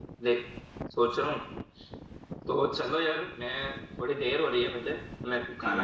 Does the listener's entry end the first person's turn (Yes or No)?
Yes